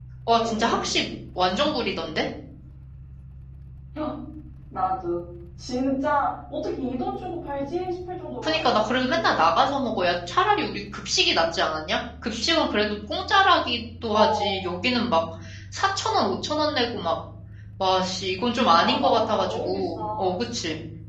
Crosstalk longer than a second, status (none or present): present